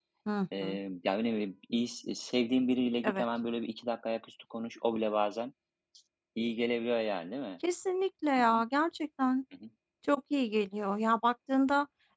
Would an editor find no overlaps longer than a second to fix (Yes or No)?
Yes